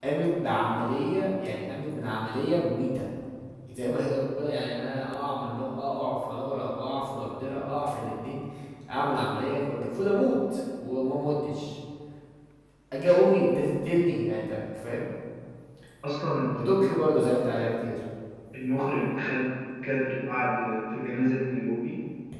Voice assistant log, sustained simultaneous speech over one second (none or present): none